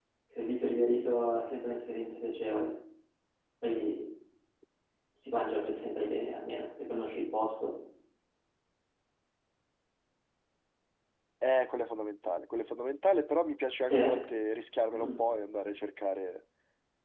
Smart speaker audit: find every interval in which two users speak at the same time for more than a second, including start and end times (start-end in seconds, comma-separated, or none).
none